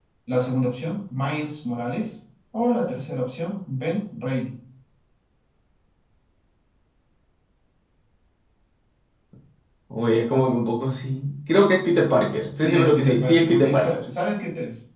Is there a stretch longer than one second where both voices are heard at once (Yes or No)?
Yes